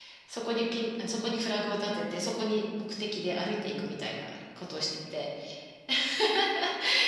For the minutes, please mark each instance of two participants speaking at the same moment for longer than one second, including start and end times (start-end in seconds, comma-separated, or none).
none